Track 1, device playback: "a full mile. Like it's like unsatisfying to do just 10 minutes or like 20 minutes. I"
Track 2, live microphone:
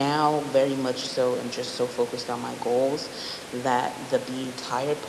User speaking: Yes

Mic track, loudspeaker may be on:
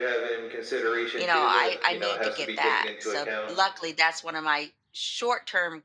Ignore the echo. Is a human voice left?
Yes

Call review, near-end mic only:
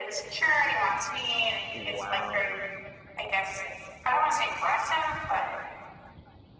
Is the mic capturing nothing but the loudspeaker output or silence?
No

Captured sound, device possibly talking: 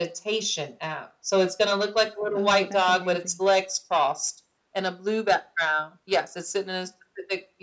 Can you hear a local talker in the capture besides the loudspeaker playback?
Yes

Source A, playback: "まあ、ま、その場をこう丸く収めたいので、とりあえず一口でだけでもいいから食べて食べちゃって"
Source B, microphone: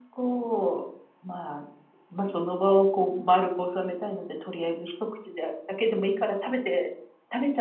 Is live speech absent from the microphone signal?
Yes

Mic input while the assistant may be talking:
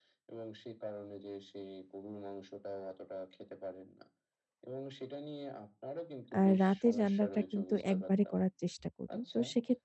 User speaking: Yes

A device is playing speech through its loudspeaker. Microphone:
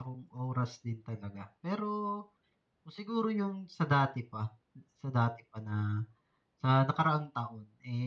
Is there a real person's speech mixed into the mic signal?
Yes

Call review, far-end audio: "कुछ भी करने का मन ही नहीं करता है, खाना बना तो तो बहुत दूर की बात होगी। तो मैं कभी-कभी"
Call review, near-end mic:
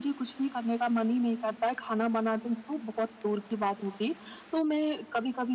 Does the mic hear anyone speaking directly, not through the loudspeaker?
No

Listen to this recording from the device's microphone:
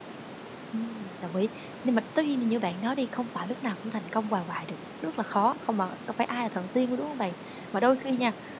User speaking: Yes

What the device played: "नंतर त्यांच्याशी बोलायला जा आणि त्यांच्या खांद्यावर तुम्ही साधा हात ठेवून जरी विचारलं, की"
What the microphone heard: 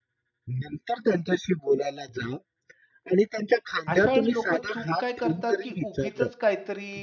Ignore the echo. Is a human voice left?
Yes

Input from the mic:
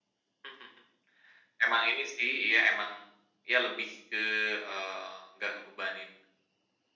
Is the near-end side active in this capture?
No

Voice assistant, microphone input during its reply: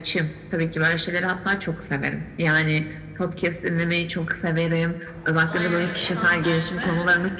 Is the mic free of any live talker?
No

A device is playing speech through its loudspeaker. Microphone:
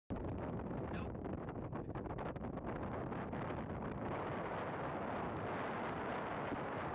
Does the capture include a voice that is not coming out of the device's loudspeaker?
No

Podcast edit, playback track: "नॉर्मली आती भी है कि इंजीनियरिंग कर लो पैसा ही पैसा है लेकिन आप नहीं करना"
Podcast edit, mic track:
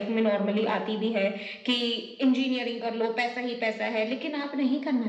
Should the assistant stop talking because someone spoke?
No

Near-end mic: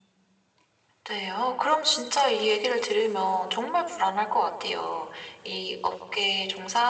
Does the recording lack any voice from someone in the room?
Yes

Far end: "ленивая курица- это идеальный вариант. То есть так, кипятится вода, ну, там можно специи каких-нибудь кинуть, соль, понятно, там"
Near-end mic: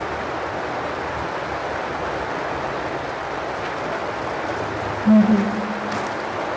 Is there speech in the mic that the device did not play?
Yes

